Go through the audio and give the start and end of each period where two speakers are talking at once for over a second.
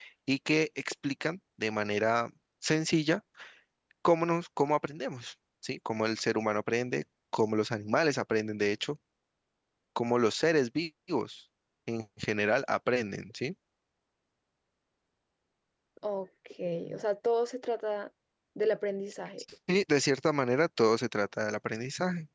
none

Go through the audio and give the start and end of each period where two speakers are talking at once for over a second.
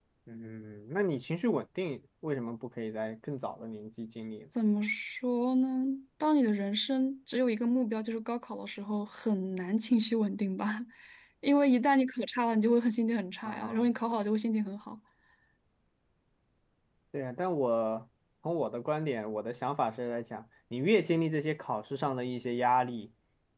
none

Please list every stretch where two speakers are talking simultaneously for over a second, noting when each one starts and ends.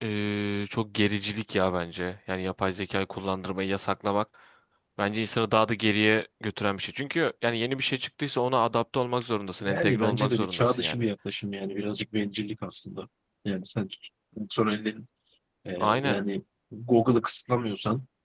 9.6-11.0

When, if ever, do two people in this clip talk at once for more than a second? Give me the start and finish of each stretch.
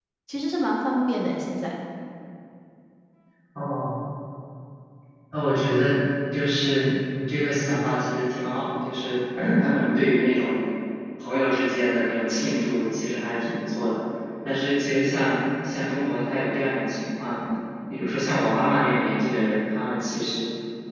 none

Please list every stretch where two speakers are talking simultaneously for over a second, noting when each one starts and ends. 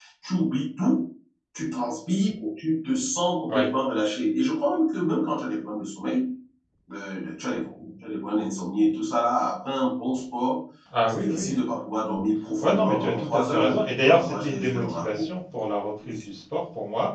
12.6-15.0

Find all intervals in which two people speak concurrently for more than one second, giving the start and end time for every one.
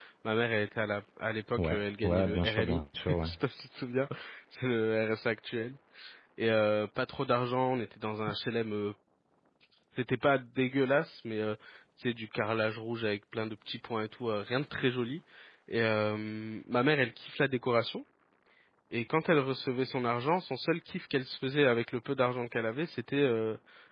1.6-3.3

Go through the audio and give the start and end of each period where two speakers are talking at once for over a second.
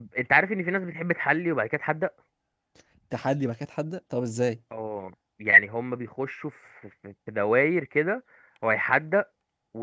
none

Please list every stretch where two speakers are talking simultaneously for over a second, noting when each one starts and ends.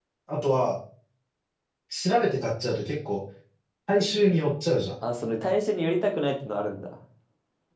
none

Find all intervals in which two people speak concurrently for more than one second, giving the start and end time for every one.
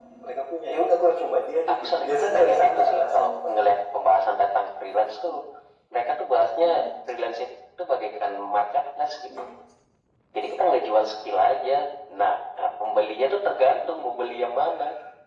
1.7-3.6

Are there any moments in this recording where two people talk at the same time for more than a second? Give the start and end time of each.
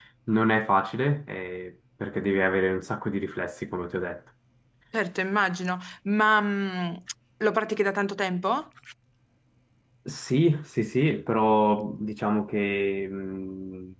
none

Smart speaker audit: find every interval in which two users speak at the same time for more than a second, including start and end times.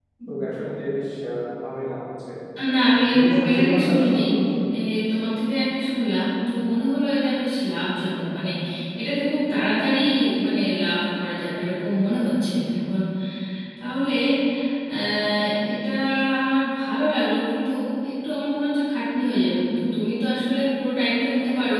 2.9-4.2

